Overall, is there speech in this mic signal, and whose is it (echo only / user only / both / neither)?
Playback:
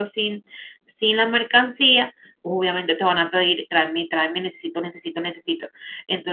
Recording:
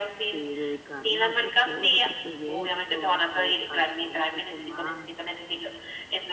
both